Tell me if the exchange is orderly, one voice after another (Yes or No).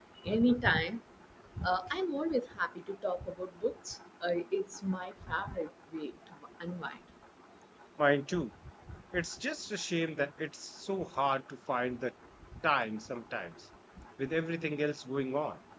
Yes